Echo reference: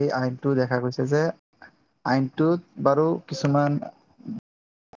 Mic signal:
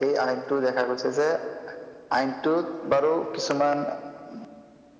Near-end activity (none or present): none